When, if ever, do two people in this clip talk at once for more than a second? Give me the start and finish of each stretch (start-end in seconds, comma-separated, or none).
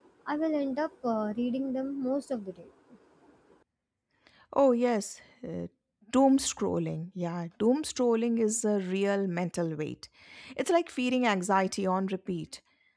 none